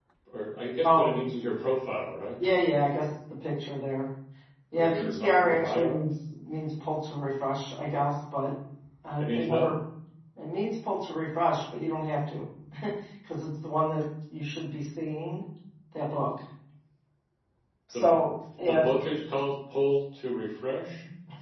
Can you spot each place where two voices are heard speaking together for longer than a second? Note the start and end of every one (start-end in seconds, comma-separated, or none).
4.7-6.0